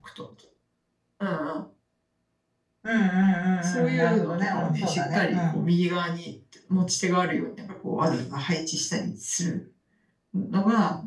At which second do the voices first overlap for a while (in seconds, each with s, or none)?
3.6 s